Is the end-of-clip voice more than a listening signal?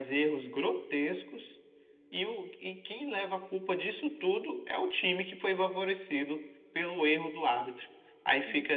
No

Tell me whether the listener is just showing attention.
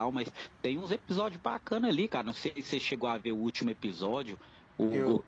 Yes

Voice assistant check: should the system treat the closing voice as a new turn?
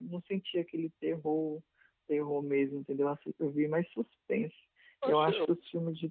No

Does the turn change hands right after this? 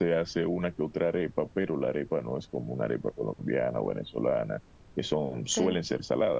No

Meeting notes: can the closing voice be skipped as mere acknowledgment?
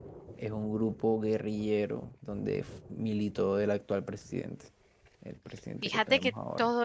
No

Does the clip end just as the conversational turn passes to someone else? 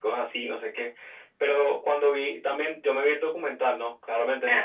No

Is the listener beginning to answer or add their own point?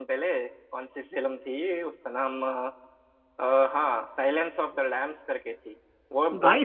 Yes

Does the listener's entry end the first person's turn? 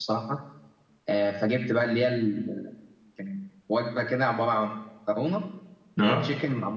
No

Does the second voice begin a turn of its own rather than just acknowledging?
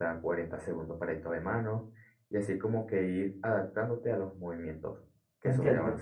Yes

